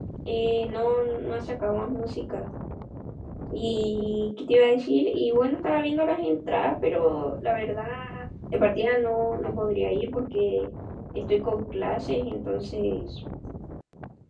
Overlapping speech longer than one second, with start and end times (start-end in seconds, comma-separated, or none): none